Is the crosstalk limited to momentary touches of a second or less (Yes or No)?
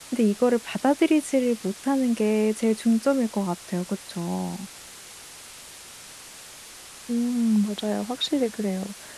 Yes